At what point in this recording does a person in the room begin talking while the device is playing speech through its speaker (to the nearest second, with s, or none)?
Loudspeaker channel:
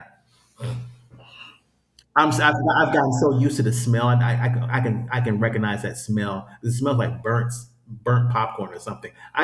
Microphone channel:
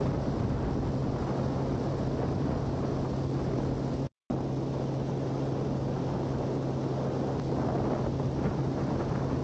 none